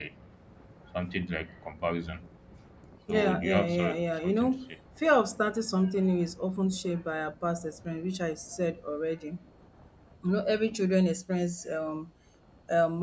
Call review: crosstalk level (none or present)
present